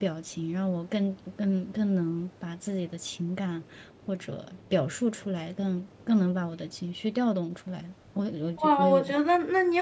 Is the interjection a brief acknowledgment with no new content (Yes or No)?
No